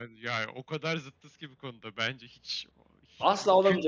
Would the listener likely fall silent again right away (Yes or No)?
No